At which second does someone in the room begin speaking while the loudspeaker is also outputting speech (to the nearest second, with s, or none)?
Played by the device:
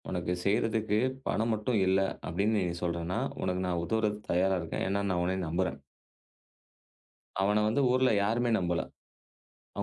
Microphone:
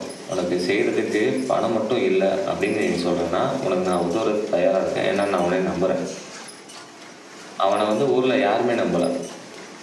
none